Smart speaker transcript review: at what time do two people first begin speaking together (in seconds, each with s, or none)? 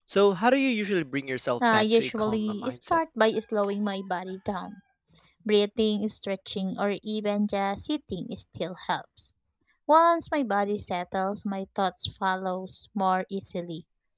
1.6 s